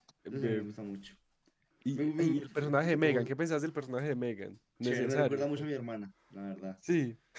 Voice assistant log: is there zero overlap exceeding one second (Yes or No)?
No